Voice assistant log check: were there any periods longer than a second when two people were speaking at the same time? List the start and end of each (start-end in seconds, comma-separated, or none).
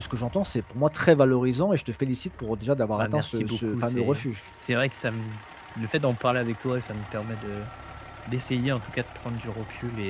3.0-4.2